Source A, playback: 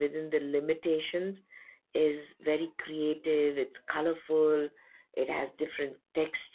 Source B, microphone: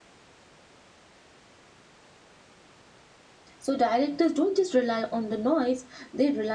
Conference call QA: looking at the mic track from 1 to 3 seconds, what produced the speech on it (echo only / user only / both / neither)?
neither